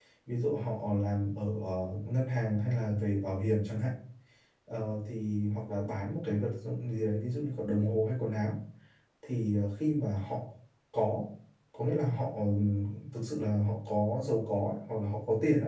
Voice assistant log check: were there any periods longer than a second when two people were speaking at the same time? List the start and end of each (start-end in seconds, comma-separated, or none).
none